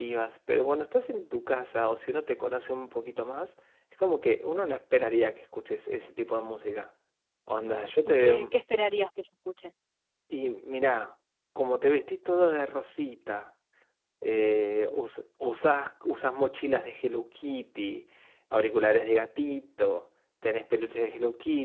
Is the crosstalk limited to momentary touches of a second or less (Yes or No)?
Yes